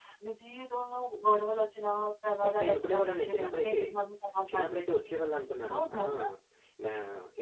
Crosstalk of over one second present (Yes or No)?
Yes